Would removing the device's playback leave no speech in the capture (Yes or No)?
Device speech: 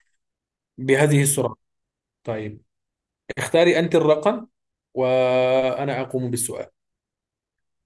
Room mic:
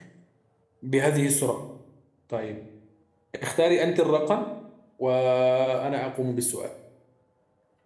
Yes